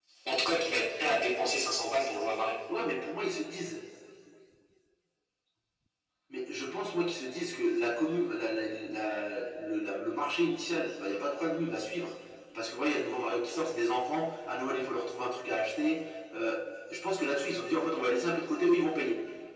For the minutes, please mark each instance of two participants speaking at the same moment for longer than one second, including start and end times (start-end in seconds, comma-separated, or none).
none